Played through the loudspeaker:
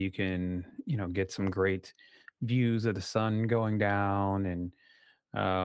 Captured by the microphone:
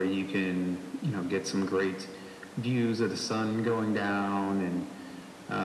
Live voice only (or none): none